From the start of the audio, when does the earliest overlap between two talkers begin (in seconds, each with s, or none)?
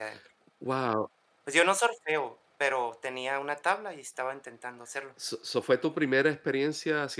none